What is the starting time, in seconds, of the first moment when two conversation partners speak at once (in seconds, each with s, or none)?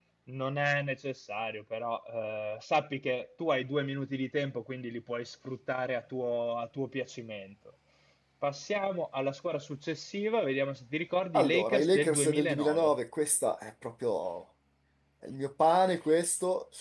11.3 s